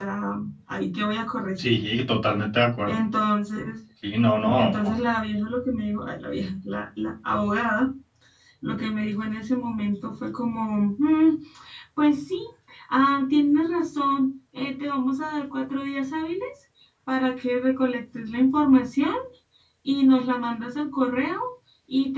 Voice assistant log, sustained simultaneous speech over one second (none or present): none